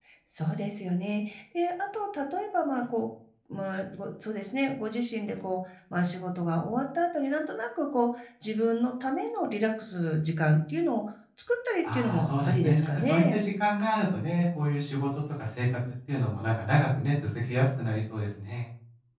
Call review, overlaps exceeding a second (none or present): present